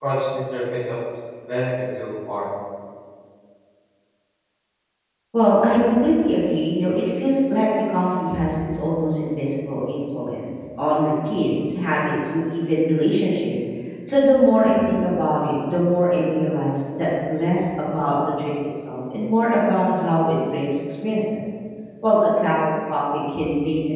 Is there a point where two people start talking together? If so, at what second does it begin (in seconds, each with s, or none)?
none